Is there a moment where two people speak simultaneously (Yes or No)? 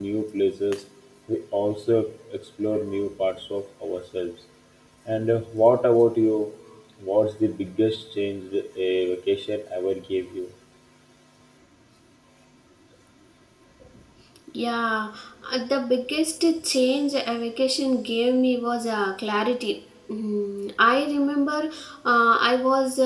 No